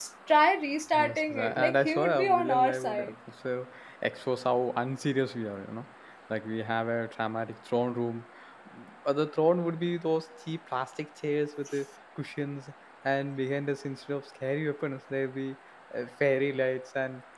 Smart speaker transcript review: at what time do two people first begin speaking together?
1.0 s

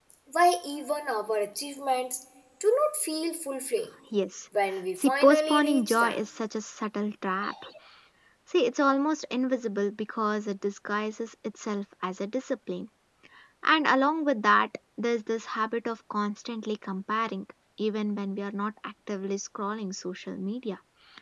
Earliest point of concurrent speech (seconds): 5.0 s

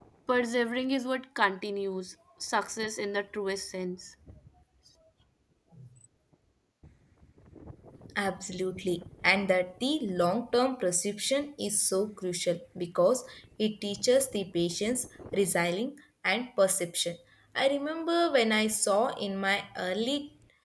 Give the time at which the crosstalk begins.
none

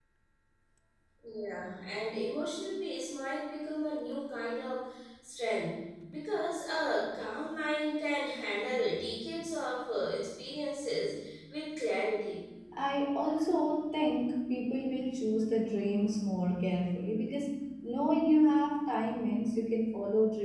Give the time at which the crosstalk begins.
none

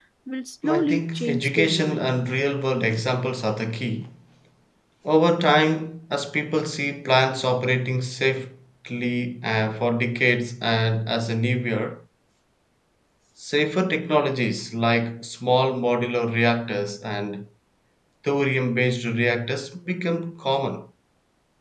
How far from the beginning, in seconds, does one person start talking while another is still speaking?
0.6 s

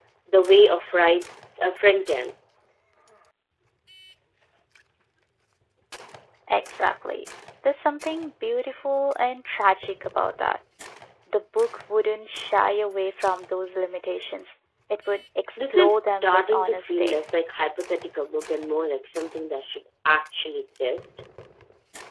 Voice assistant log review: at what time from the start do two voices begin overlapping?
15.6 s

